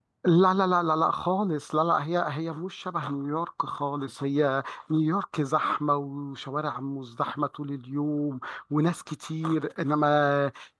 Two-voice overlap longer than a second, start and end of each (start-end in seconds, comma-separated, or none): none